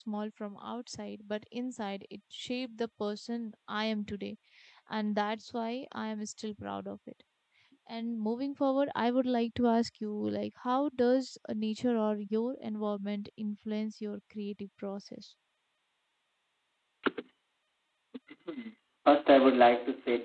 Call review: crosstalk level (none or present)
none